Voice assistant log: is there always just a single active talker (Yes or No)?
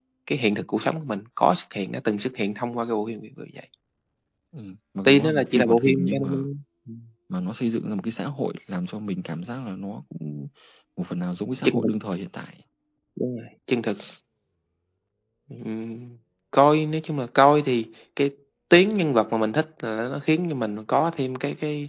No